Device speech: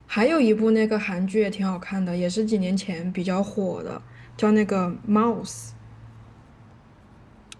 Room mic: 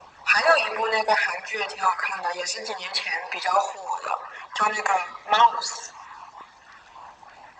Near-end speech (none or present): none